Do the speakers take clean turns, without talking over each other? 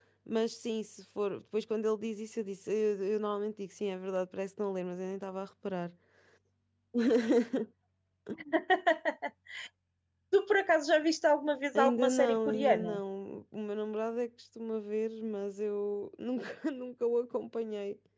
No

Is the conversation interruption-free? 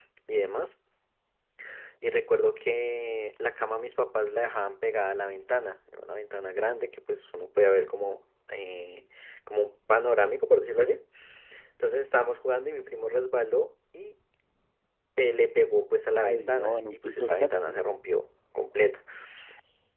No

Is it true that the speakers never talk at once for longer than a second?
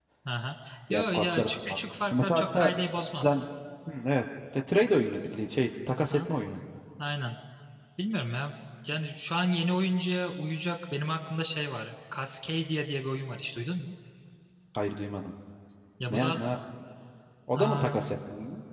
No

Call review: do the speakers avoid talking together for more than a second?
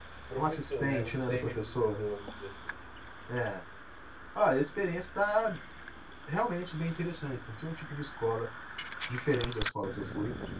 No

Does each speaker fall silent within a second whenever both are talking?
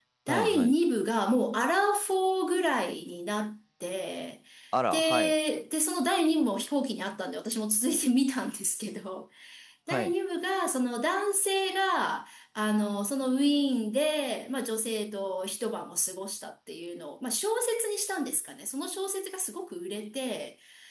Yes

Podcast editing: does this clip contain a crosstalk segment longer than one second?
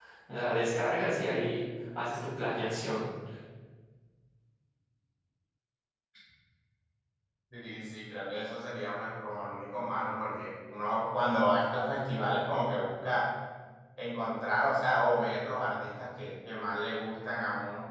No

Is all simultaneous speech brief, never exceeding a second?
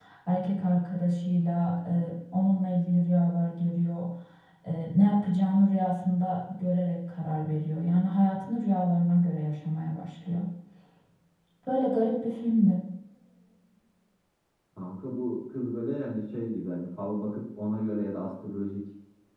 Yes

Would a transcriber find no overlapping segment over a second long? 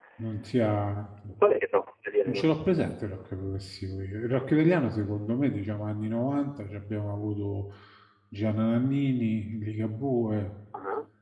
Yes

